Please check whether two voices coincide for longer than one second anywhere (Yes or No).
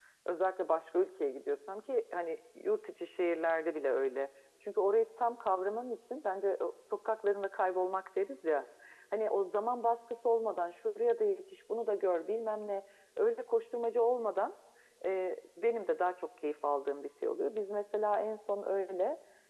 No